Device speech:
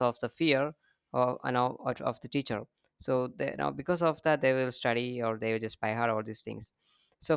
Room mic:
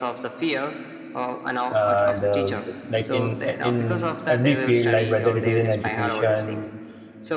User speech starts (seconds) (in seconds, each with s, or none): 1.7 s